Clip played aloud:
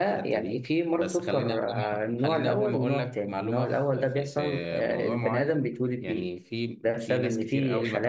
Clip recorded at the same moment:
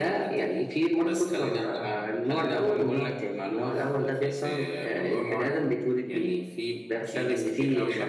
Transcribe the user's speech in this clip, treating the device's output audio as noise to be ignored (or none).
none